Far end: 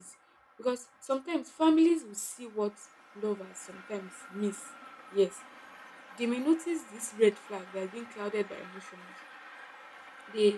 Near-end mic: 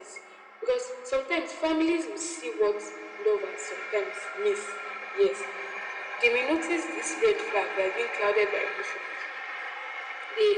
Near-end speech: none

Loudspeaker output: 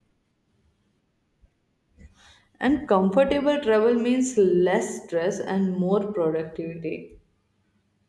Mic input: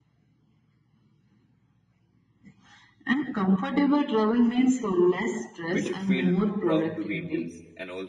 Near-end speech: present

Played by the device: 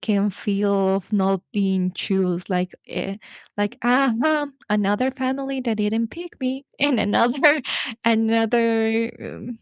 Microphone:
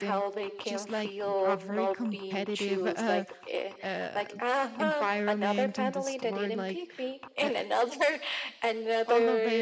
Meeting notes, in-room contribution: present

